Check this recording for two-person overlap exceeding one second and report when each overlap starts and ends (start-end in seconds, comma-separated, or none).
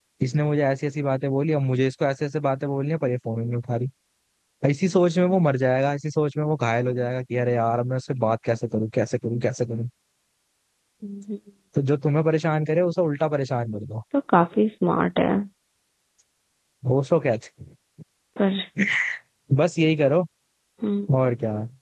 none